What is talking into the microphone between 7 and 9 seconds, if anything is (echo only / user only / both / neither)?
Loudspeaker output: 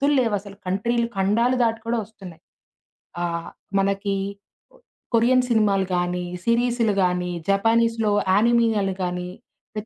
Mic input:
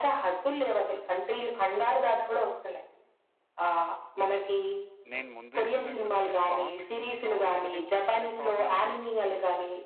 both